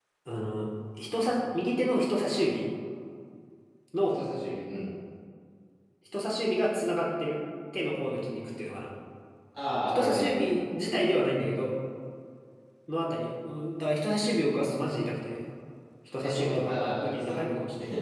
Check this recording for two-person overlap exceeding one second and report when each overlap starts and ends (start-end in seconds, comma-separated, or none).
16.2-17.4